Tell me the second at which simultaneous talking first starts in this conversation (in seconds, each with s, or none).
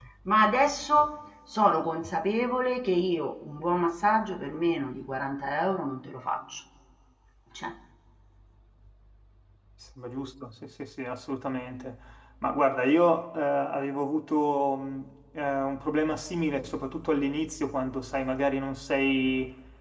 none